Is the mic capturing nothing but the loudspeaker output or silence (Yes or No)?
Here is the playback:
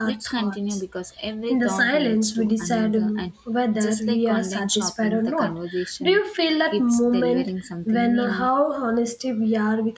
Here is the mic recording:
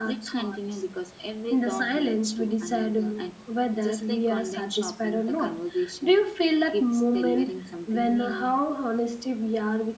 Yes